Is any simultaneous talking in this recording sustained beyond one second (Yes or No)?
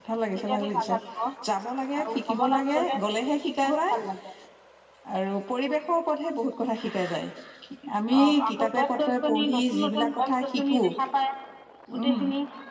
Yes